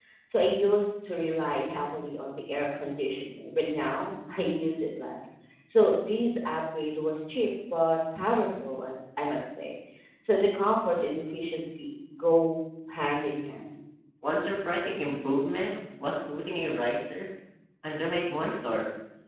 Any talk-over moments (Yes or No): No